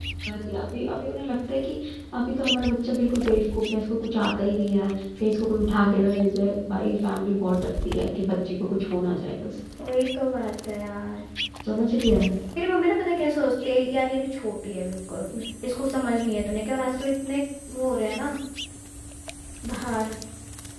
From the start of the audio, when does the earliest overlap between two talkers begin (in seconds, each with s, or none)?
none